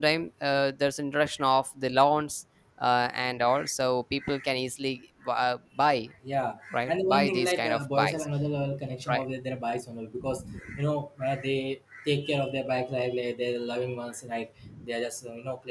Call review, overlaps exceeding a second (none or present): present